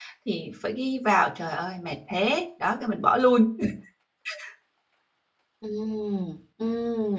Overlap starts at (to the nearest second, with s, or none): none